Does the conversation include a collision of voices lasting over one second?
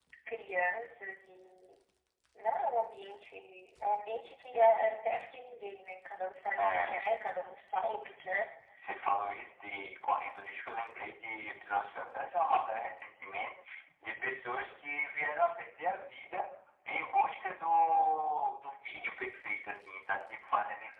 No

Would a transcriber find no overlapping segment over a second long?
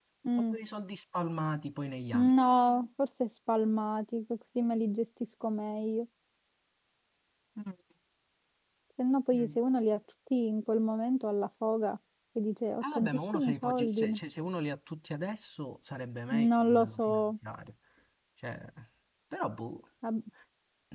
No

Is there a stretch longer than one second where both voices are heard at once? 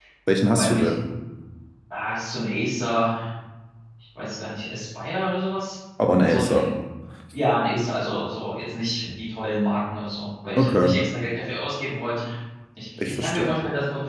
No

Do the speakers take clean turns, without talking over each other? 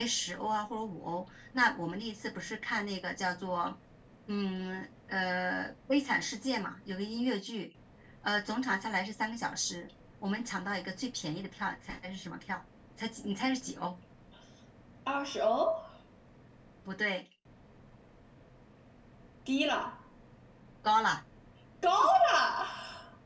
Yes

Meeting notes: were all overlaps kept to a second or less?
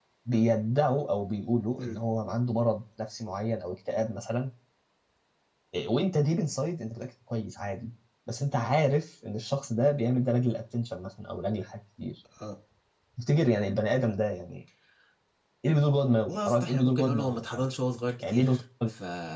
No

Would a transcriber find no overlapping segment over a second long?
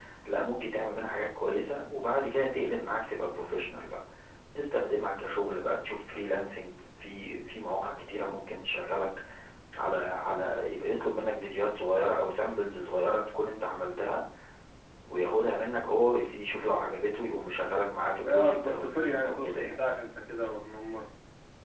No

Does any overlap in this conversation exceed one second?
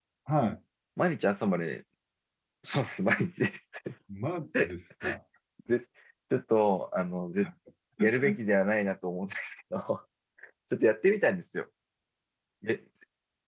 No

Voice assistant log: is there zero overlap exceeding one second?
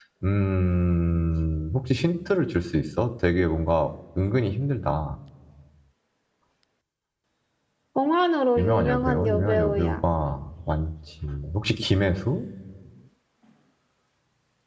No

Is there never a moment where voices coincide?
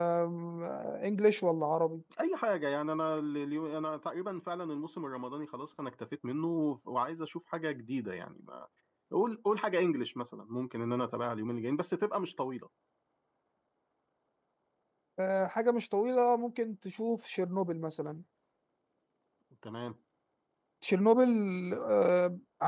Yes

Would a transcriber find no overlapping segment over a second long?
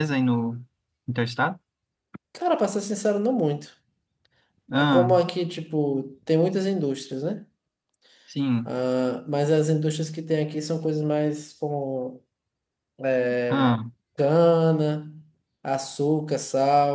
Yes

